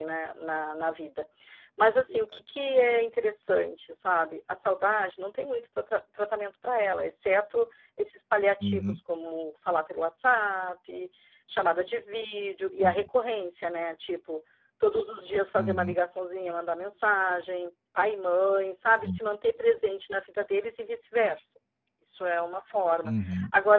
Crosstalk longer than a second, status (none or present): none